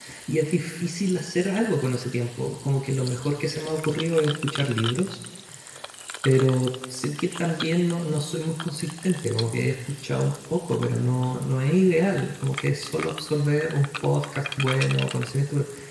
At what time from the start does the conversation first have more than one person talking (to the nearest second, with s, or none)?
none